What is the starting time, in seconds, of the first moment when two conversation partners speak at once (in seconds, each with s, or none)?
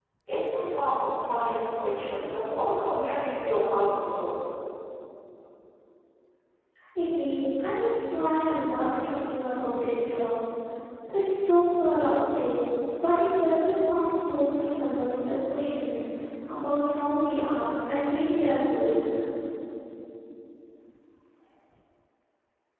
none